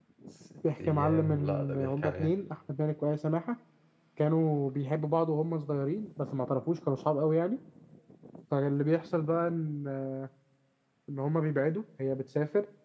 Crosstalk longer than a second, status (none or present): present